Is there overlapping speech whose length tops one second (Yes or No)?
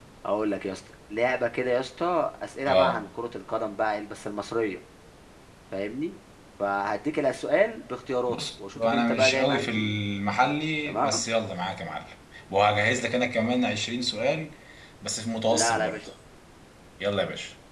Yes